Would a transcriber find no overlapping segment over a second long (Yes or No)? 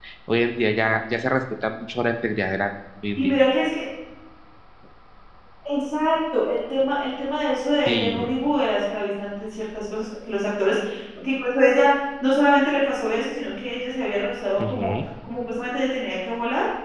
Yes